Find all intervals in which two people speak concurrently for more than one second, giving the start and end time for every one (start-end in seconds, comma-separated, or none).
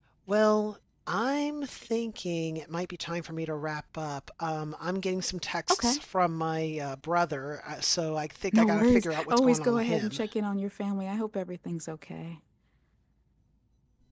8.5-10.2